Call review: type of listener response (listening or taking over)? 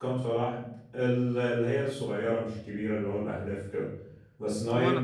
listening